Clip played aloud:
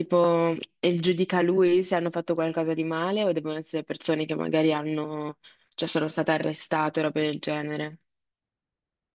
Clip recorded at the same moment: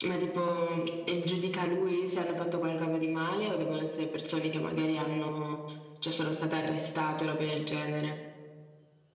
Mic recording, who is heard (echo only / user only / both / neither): echo only